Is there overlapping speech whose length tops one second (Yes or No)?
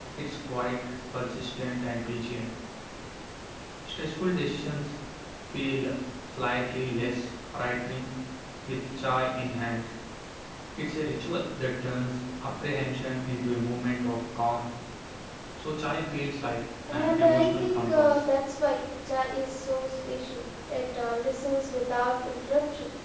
Yes